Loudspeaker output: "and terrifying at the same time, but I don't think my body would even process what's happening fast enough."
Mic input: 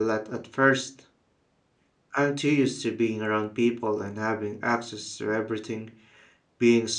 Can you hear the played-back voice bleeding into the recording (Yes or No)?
No